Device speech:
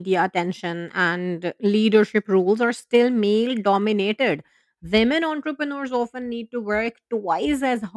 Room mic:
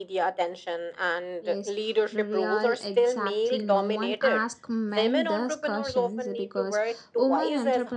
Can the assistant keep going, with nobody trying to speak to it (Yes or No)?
No